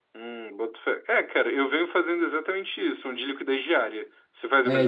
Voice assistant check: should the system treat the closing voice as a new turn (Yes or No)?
Yes